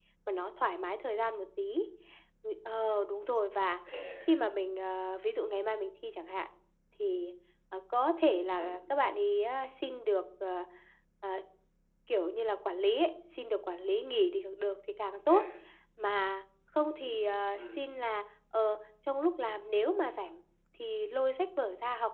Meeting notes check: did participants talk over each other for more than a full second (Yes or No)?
No